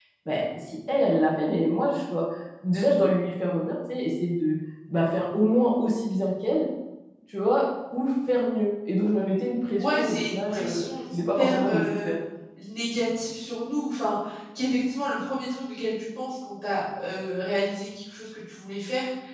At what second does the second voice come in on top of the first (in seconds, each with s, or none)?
9.8 s